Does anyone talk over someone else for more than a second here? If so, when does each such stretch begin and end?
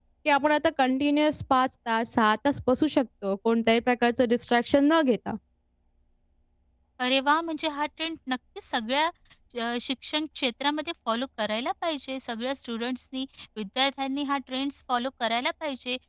none

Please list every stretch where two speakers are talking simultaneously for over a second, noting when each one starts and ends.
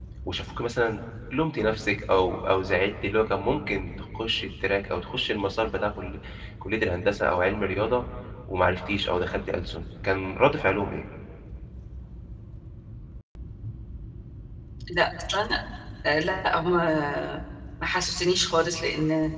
none

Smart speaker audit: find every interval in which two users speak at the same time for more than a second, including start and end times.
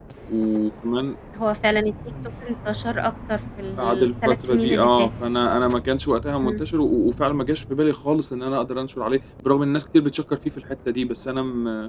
3.8-5.1

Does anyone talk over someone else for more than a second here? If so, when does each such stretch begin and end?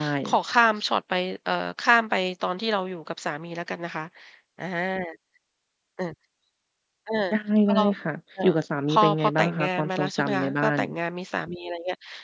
8.9-10.8

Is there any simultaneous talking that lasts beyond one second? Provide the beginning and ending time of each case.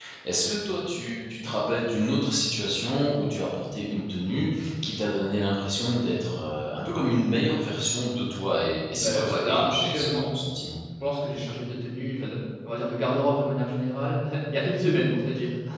8.9-10.3

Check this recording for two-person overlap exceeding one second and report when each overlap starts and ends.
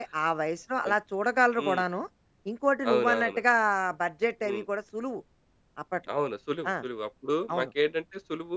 none

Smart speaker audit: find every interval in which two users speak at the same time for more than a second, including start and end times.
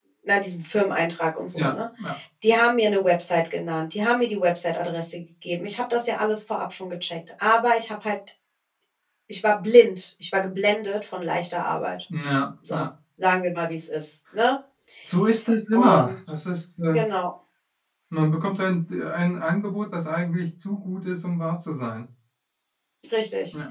none

